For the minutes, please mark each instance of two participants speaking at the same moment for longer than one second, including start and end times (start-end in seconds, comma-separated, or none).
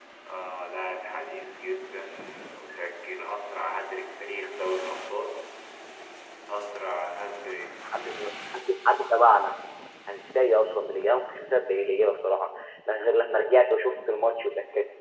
none